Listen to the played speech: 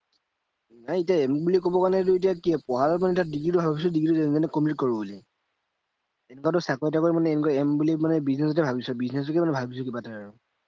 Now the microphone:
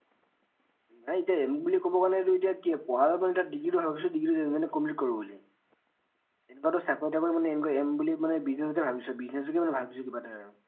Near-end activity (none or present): none